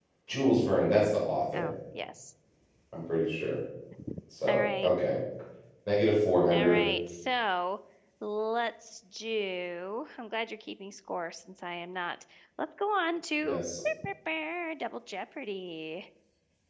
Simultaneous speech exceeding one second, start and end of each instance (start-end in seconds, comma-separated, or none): none